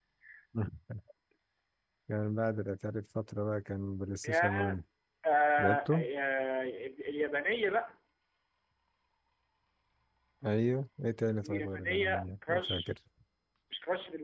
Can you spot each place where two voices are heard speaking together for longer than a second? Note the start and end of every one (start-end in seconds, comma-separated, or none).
11.4-12.9